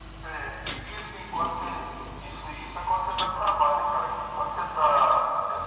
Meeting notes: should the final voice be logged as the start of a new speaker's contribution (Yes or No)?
No